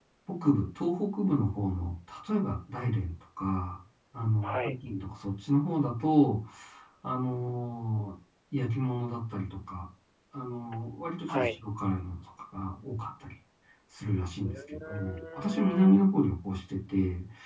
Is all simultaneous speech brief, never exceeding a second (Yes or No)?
No